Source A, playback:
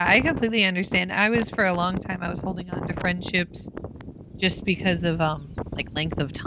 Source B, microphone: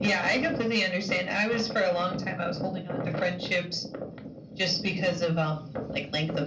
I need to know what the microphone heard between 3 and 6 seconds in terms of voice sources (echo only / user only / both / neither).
echo only